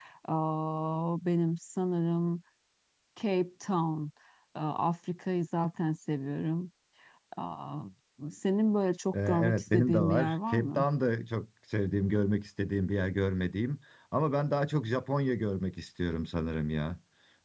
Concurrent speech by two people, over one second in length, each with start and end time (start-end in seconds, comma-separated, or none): 9.3-10.8